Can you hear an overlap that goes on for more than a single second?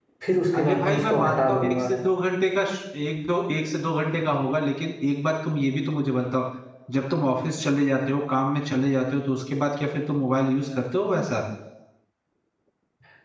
Yes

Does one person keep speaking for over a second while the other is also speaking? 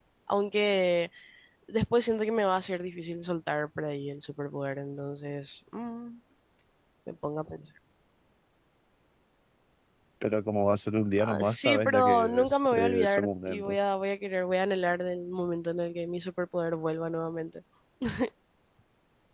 Yes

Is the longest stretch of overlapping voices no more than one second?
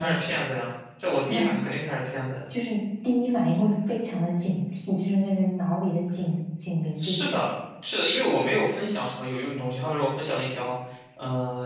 Yes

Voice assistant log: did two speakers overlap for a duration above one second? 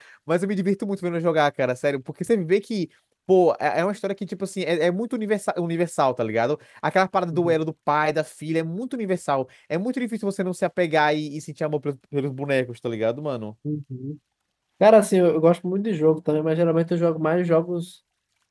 No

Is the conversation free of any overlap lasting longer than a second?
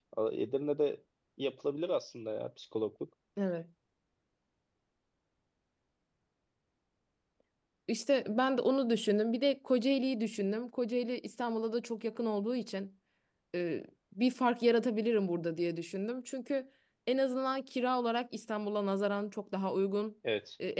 Yes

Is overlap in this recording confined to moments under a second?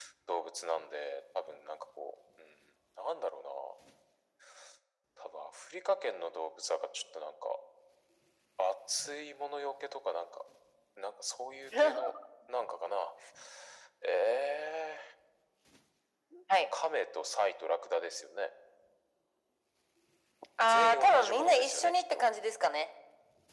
No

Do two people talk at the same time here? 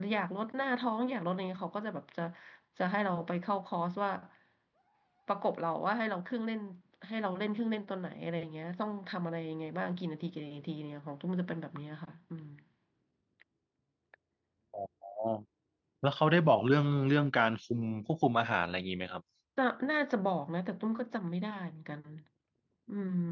No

